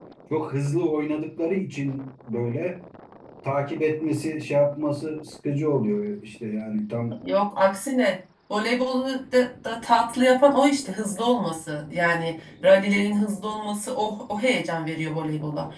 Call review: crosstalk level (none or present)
none